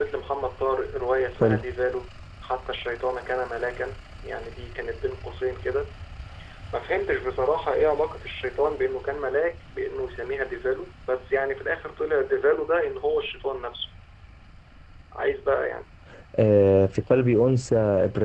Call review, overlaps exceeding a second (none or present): none